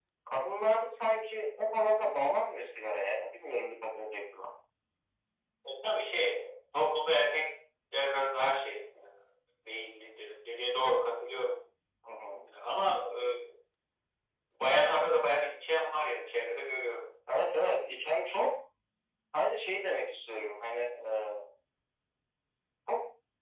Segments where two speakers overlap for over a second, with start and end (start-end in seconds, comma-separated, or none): none